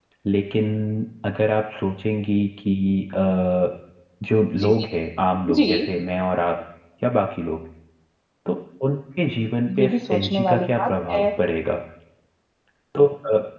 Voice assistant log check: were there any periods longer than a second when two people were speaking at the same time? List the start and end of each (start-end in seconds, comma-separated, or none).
9.8-11.3